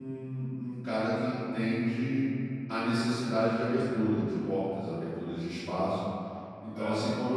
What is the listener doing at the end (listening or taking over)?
listening